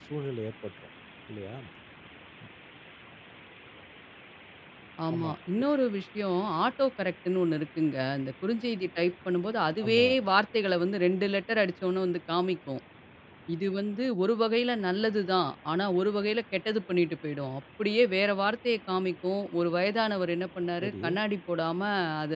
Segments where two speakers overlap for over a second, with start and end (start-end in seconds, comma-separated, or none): none